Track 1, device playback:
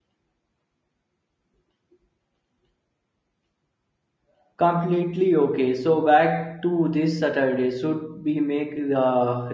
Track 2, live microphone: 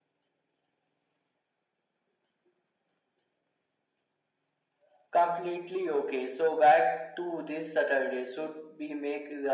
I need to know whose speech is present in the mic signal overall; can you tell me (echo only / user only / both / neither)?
echo only